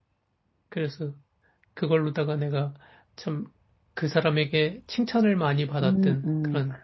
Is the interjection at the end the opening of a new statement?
Yes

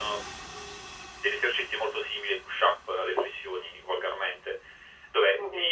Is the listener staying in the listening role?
Yes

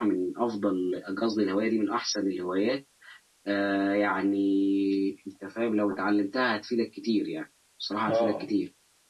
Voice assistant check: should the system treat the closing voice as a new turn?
Yes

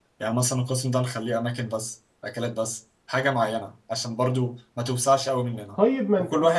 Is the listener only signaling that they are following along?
No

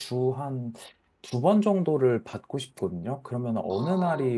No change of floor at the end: Yes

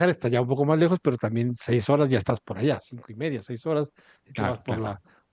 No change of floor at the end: Yes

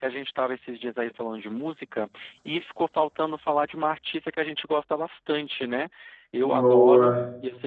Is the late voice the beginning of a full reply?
No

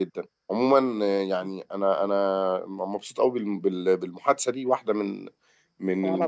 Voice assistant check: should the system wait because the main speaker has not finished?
Yes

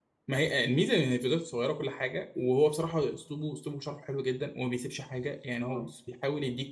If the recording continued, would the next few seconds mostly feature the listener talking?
No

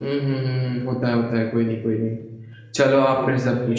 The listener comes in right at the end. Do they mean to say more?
Yes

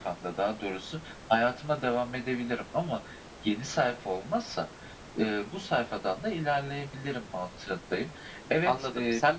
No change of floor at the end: No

